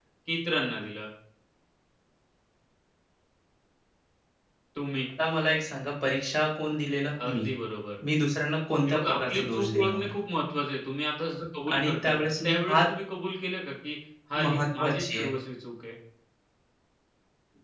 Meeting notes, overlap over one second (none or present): present